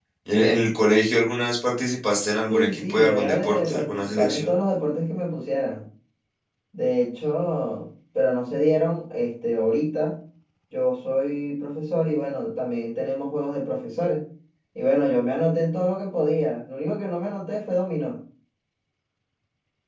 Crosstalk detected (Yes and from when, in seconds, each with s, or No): Yes, from 2.5 s